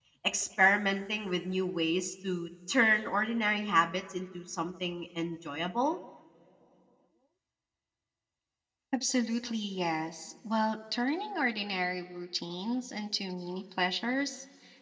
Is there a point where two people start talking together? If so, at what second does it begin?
none

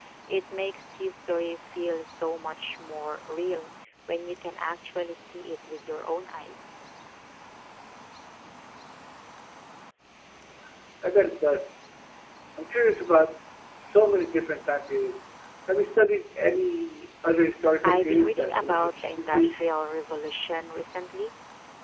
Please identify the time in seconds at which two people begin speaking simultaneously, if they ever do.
18 s

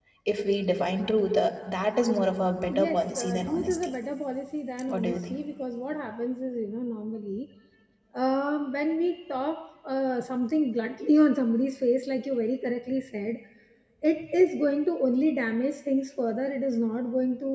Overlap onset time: 3 s

